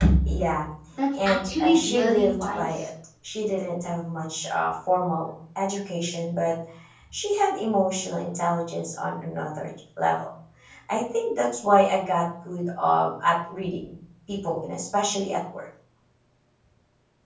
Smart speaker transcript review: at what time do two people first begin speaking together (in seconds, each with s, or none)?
1.2 s